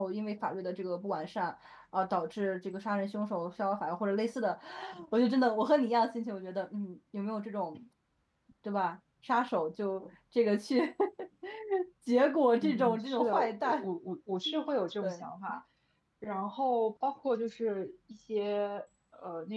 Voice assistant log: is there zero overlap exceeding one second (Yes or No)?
No